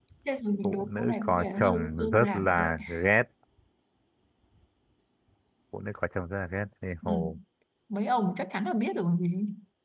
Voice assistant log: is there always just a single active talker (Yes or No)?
No